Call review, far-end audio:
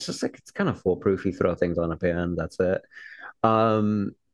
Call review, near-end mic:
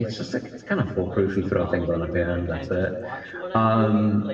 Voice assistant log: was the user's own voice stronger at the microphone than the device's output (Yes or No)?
No